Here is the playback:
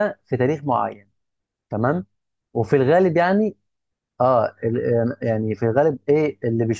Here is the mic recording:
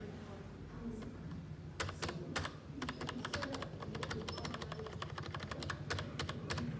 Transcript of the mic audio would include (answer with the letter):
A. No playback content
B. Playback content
A